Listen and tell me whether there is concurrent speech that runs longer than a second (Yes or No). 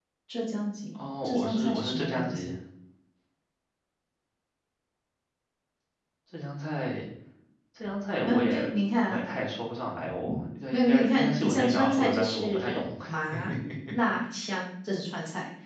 Yes